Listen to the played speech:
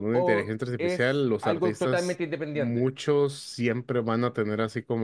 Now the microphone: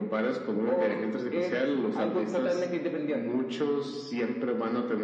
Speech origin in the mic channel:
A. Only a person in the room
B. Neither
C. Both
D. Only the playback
D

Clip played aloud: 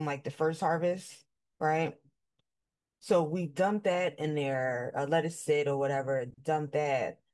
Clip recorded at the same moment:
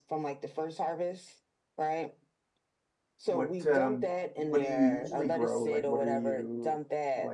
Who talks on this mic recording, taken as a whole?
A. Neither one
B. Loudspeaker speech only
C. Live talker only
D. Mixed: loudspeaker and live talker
D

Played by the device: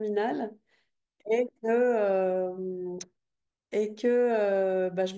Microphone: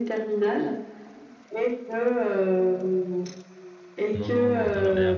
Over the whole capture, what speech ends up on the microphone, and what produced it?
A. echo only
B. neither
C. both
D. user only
C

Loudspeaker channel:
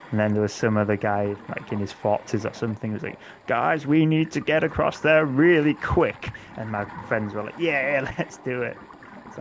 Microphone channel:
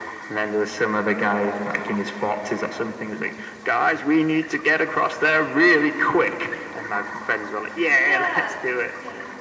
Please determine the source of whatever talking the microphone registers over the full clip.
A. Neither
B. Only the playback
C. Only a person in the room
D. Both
D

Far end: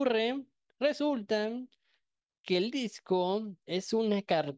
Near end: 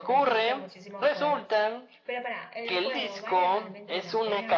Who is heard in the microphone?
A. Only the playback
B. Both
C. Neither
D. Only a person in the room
B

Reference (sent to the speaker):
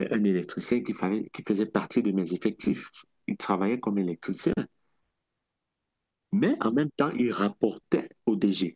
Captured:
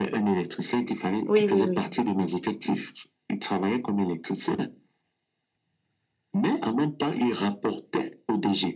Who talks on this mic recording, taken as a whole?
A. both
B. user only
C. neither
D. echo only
A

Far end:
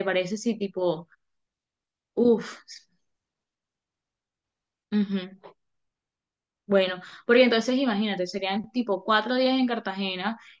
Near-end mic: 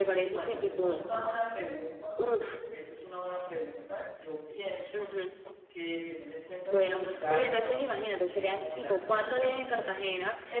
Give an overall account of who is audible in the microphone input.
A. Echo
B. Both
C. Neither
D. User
B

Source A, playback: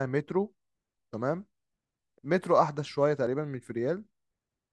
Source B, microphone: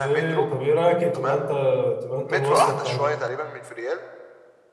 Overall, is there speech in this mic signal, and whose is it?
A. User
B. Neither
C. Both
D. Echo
C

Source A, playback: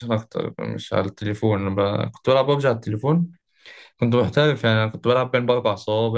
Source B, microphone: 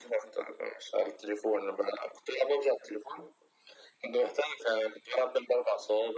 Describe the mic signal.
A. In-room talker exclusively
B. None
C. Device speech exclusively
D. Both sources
C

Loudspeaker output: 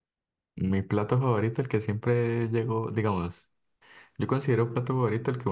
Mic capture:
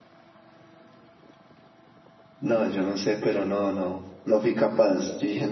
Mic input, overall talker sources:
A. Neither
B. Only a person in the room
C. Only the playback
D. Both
B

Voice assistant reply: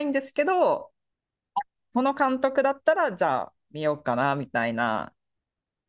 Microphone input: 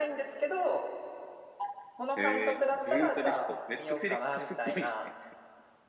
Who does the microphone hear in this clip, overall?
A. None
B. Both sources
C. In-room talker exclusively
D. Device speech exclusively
B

